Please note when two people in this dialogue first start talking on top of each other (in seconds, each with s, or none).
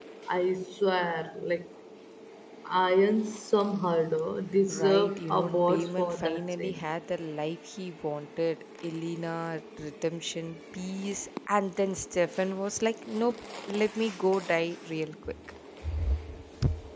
4.7 s